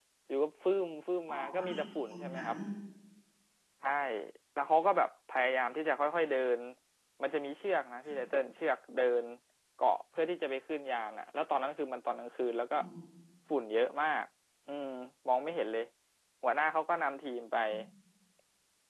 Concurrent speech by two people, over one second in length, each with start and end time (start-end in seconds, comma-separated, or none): 1.3-2.5